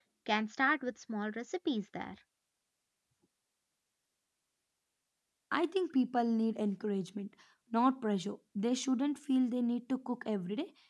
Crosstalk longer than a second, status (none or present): none